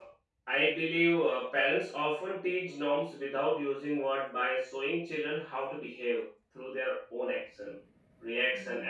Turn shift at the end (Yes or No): No